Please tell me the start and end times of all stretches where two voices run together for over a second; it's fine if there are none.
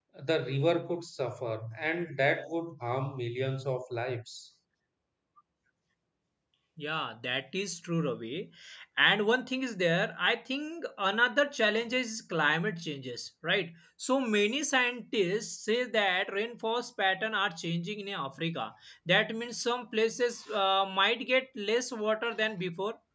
none

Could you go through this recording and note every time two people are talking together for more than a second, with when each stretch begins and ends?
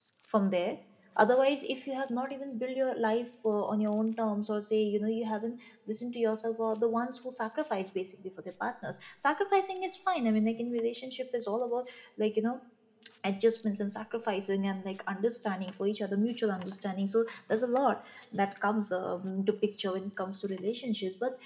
none

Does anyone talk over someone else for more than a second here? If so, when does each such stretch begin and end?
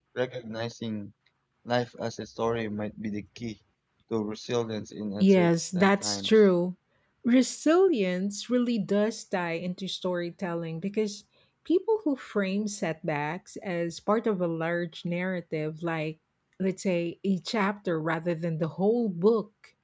5.2-6.5

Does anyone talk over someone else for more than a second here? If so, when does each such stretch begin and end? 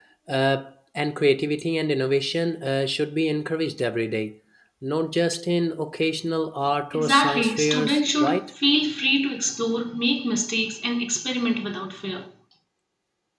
6.9-8.5

